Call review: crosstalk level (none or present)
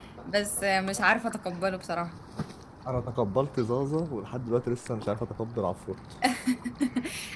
none